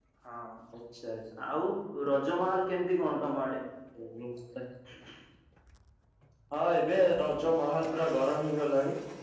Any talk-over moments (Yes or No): No